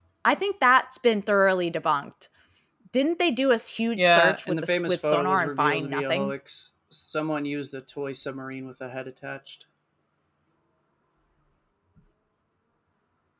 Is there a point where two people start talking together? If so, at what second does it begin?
4.0 s

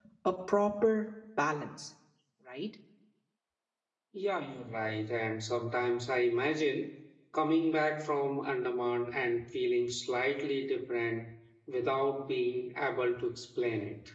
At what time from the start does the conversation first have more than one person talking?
none

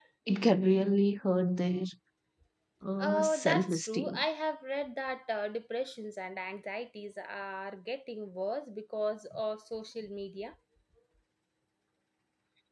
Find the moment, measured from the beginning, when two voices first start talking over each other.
3.0 s

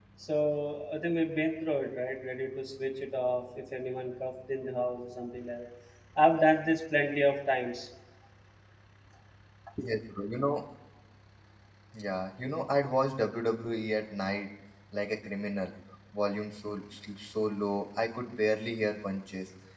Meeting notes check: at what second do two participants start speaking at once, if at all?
none

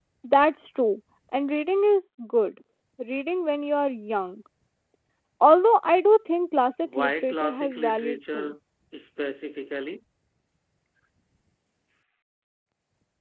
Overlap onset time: 6.8 s

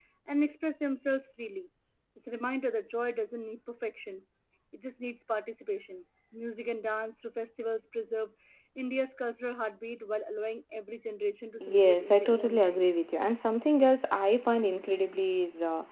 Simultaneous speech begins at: 11.6 s

